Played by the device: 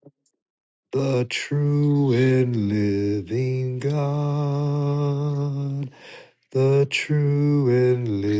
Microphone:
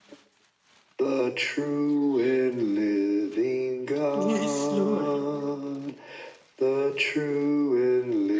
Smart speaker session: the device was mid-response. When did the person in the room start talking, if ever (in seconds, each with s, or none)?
4.1 s